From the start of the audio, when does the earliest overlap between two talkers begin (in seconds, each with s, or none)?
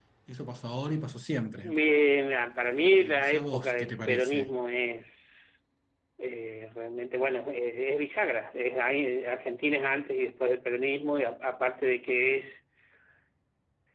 3.0 s